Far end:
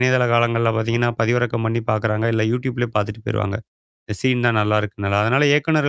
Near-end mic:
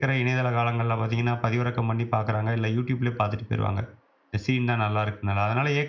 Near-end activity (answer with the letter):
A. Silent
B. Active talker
A